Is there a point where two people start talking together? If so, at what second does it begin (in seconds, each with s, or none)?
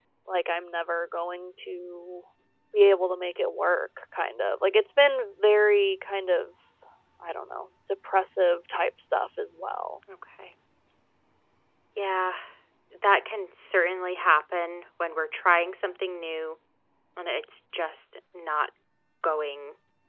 none